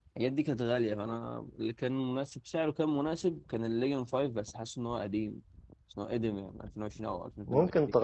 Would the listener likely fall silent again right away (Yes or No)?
No